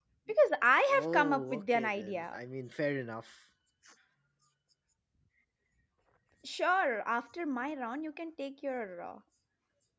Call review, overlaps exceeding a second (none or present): present